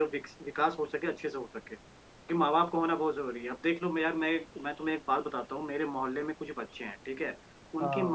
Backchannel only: Yes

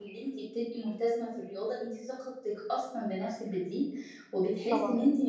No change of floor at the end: Yes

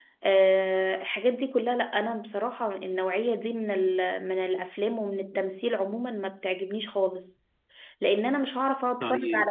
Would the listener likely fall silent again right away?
Yes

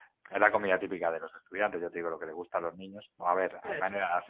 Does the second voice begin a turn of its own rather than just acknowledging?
No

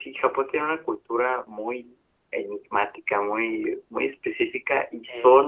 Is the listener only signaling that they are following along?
Yes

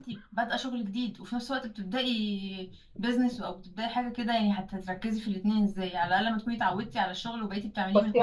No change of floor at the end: No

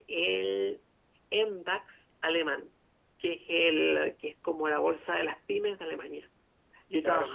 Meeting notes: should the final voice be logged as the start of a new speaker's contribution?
No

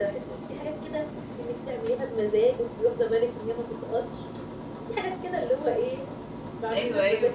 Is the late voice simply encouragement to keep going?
No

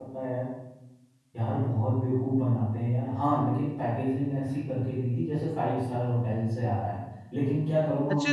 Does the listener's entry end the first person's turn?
Yes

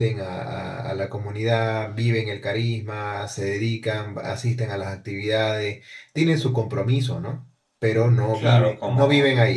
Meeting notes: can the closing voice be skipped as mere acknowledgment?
No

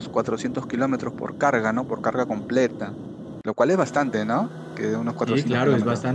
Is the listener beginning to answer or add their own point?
Yes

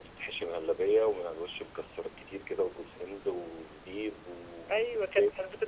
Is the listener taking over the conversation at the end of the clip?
Yes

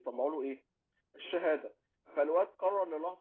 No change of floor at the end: Yes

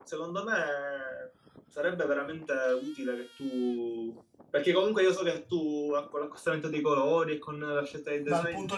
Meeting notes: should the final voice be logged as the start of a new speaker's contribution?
Yes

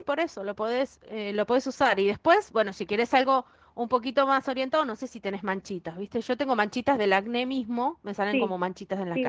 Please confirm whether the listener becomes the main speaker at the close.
Yes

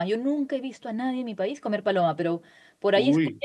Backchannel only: Yes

